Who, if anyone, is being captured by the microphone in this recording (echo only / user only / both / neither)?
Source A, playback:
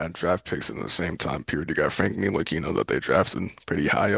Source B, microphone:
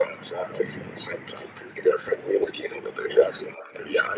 echo only